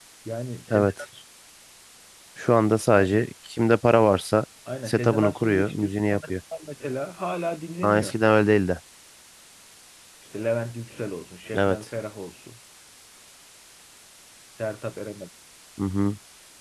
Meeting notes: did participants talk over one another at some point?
Yes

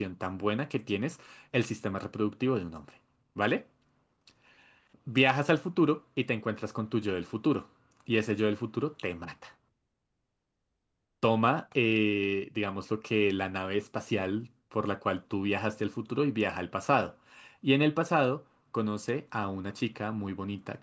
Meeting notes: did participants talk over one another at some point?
No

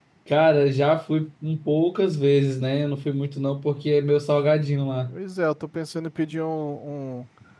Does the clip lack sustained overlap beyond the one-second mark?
Yes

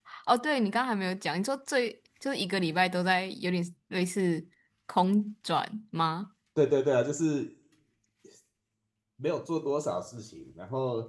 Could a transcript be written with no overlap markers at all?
Yes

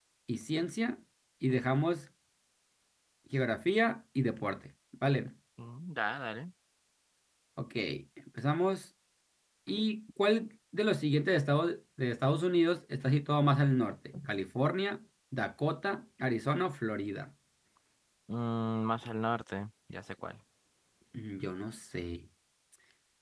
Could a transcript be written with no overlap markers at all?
Yes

